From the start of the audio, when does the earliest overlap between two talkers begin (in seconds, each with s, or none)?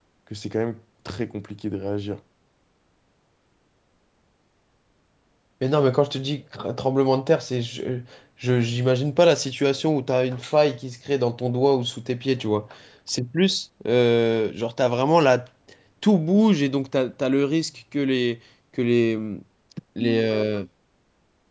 none